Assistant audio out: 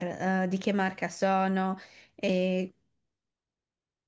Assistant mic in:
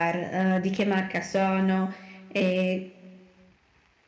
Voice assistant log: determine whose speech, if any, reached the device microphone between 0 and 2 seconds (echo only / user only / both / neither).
echo only